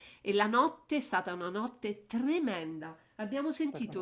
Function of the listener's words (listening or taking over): listening